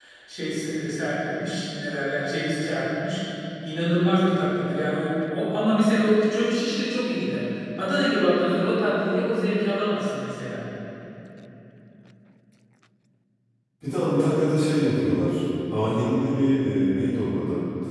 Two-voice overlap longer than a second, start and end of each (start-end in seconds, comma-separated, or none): none